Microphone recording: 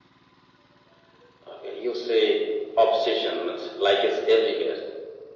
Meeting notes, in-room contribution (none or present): none